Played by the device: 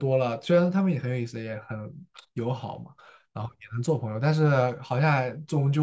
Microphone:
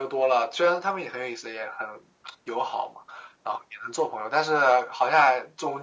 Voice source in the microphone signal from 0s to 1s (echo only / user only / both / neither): echo only